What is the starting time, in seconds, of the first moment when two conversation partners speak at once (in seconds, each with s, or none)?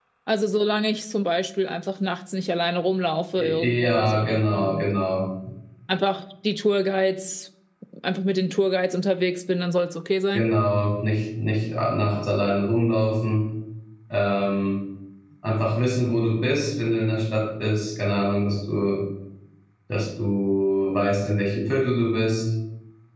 3.4 s